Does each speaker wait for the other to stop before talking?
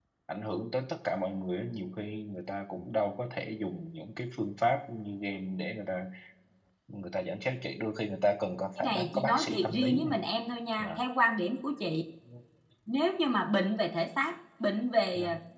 No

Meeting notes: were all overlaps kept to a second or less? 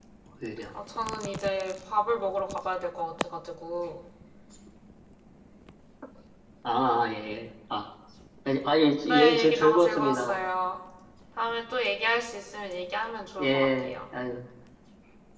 No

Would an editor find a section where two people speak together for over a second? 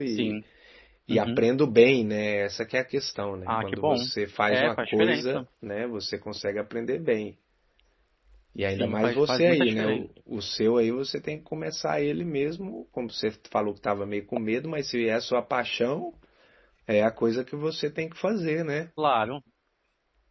Yes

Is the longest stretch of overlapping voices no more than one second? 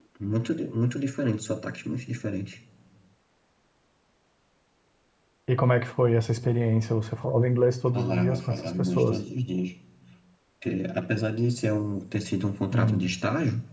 No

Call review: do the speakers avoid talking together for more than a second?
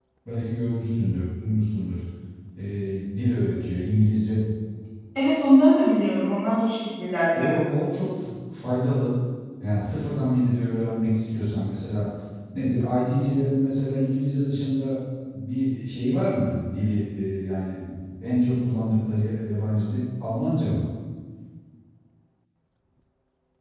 Yes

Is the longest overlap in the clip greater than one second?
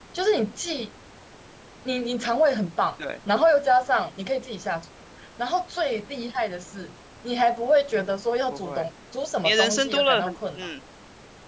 Yes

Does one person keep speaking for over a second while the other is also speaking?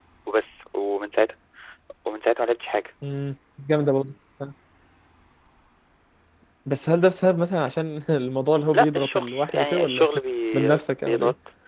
Yes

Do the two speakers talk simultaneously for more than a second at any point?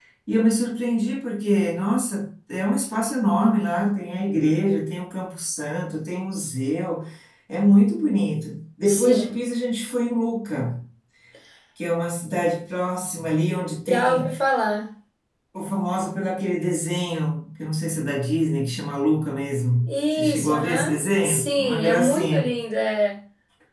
Yes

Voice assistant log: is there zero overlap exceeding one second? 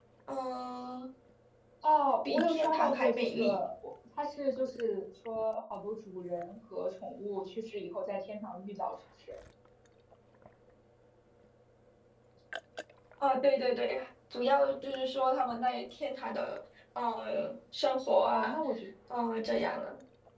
No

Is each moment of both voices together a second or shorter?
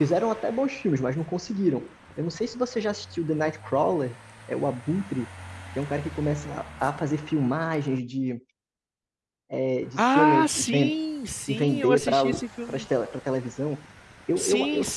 No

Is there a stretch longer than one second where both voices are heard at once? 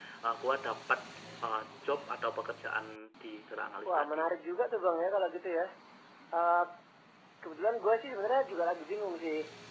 No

